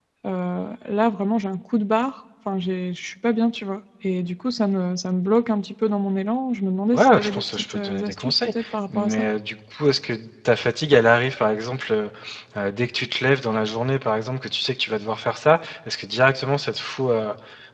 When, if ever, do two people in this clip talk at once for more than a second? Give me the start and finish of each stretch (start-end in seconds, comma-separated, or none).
6.9-8.5